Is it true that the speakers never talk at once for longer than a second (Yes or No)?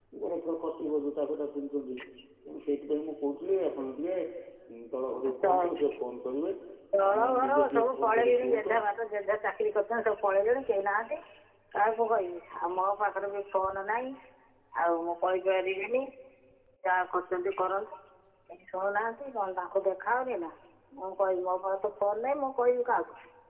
No